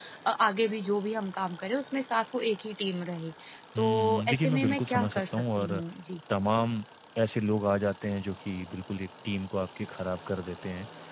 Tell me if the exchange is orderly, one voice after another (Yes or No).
No